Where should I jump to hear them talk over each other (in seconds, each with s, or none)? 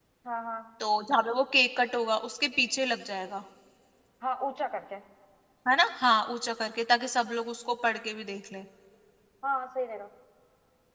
none